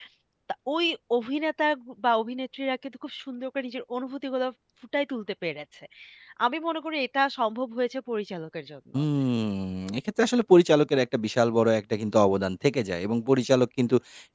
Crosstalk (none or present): none